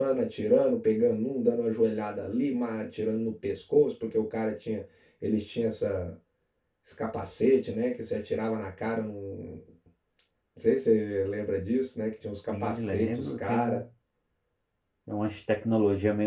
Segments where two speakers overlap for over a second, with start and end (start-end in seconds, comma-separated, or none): 12.5-13.8